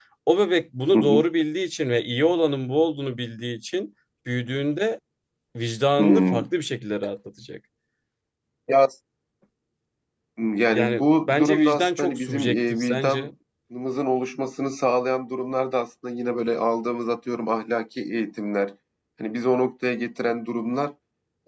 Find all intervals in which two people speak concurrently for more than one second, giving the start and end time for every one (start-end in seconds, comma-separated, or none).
10.7-13.3